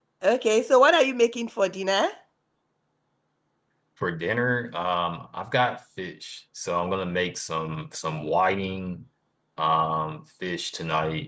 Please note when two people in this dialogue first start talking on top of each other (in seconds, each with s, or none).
none